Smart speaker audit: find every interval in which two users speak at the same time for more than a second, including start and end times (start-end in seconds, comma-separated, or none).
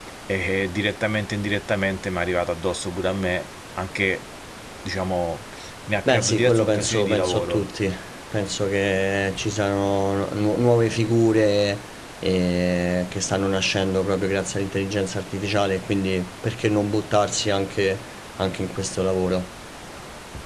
6.0-7.7